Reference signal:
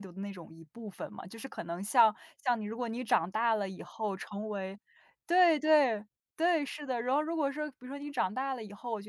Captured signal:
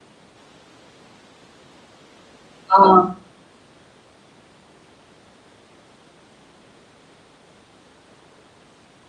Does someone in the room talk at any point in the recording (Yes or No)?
Yes